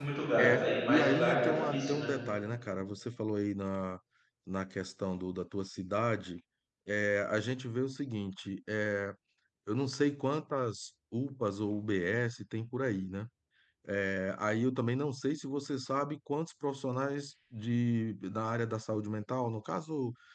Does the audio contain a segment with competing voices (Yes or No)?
Yes